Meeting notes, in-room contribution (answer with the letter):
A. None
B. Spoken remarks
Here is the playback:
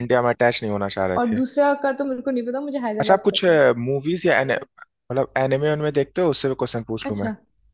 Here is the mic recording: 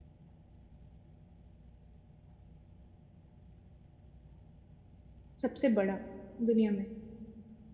B